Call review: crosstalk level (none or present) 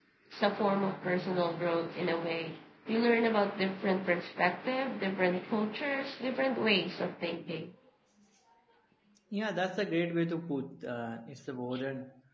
none